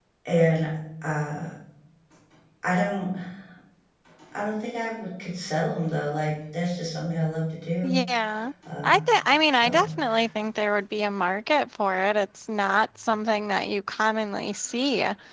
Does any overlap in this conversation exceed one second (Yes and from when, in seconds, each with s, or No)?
No